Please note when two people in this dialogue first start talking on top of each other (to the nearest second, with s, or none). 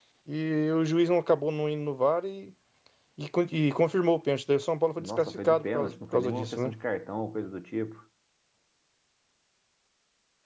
5 s